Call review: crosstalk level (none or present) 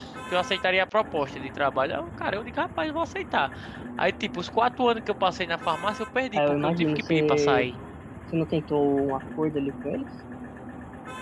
present